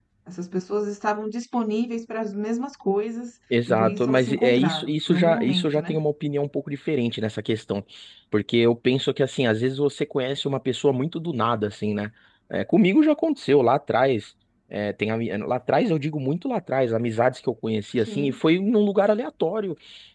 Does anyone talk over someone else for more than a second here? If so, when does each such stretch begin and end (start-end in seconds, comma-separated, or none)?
3.7-6.0